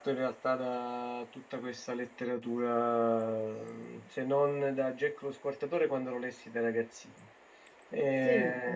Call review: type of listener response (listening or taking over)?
listening